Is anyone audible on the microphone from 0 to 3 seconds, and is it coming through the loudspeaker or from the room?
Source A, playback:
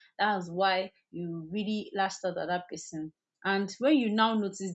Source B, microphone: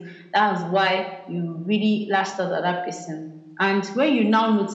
echo only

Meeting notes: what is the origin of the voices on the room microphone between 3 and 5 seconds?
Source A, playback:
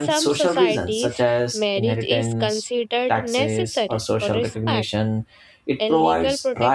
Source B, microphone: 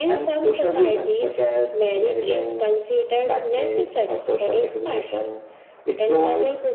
echo only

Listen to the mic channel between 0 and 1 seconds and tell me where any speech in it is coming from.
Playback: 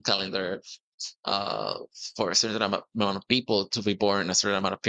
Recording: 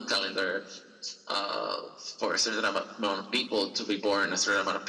echo only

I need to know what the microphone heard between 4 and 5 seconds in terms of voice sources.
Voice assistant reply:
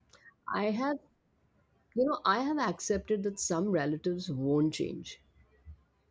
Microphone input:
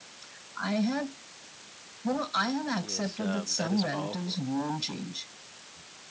both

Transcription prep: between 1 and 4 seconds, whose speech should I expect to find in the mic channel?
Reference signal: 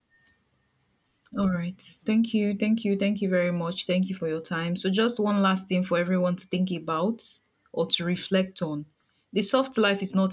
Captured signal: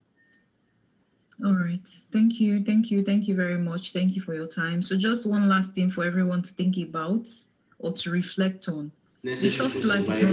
echo only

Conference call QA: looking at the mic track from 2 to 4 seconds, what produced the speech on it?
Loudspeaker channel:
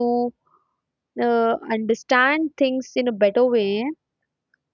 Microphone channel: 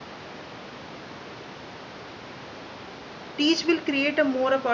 user only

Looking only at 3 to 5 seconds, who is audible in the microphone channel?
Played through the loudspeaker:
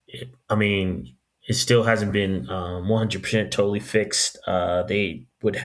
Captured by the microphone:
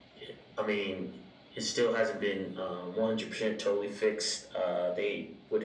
echo only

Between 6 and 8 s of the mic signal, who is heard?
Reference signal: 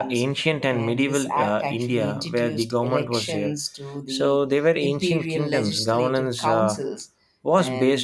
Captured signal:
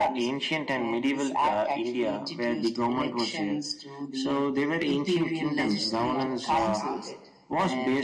both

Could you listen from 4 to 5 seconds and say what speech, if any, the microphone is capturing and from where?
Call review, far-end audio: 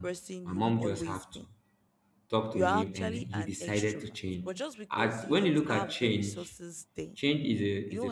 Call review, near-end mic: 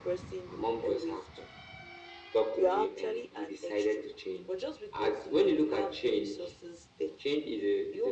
echo only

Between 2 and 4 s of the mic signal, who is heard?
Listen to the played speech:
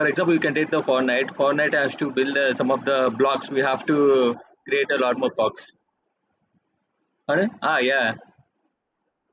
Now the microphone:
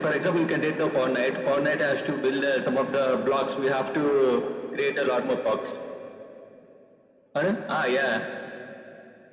echo only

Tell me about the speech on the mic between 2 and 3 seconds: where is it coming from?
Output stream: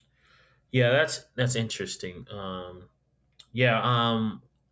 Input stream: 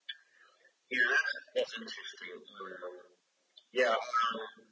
echo only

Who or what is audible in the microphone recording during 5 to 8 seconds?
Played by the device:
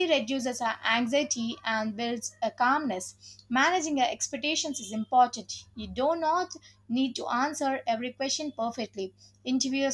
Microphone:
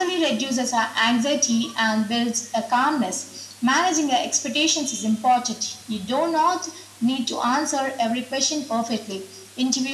echo only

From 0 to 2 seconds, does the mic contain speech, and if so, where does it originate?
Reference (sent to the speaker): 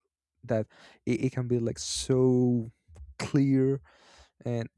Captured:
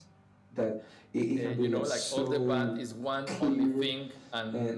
both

